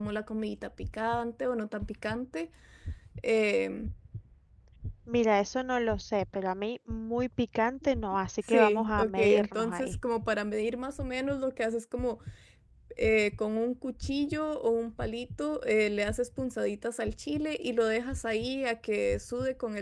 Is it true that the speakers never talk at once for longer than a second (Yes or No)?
No